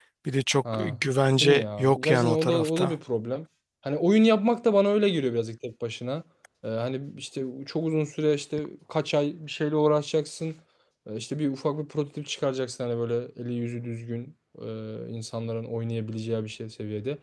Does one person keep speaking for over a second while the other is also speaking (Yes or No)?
Yes